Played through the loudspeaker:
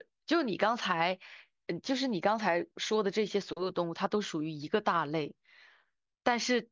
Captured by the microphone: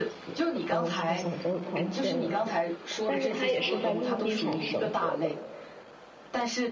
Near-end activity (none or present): present